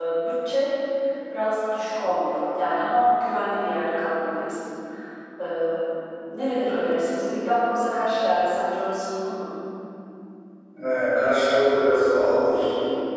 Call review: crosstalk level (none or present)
none